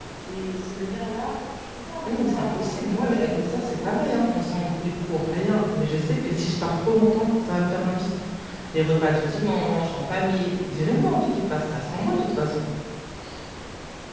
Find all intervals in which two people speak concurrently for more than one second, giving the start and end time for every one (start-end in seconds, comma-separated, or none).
2.1-4.3